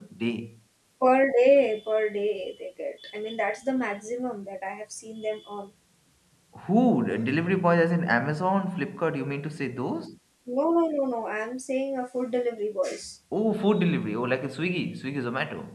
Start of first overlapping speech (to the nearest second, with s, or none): none